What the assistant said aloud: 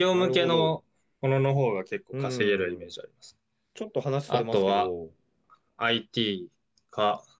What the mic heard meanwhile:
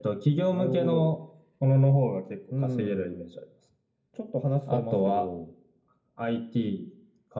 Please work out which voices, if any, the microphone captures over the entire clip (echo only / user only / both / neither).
echo only